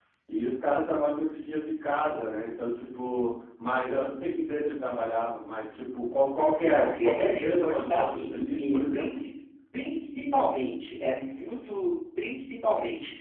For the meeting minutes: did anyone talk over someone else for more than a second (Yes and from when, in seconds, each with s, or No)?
Yes, from 6.7 s